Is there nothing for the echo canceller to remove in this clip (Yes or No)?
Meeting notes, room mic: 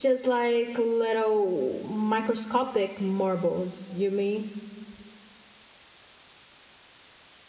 Yes